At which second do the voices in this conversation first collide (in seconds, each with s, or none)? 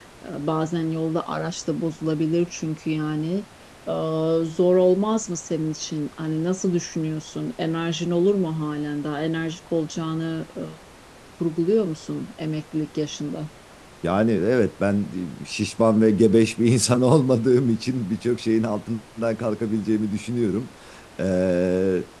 none